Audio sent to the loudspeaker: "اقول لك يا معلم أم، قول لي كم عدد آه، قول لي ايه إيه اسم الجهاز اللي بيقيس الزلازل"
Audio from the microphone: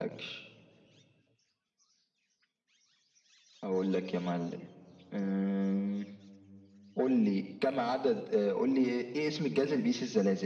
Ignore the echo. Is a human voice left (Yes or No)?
No